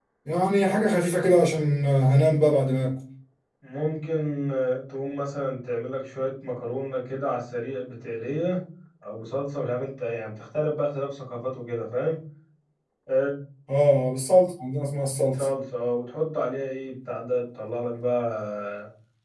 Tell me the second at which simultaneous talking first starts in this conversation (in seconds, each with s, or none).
none